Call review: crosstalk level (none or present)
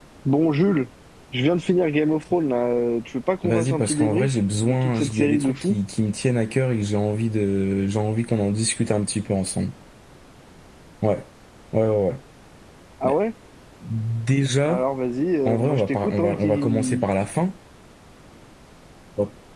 present